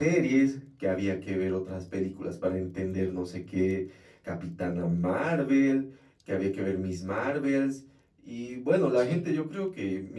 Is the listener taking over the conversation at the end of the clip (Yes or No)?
No